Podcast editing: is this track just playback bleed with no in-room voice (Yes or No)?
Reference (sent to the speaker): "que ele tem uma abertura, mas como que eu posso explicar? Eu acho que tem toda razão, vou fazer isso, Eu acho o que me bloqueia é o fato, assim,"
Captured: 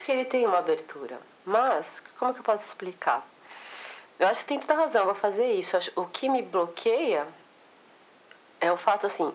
Yes